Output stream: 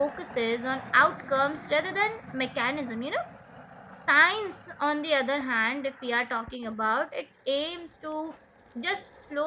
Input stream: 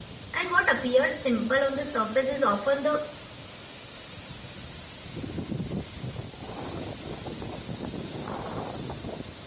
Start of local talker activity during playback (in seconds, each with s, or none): 0.3 s